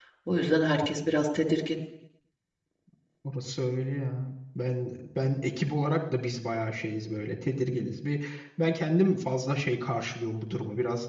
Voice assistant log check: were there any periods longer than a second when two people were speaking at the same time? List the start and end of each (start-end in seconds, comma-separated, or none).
none